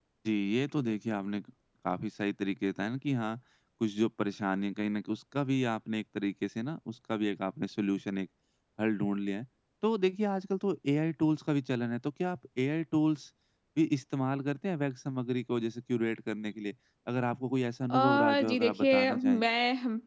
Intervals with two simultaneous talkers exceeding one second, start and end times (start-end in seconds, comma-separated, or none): 17.9-19.4